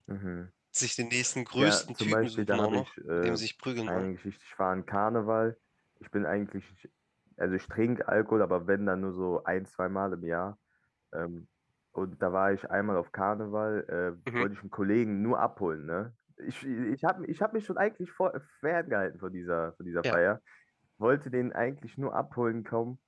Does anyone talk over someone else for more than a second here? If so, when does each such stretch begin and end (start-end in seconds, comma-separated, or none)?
1.6-3.4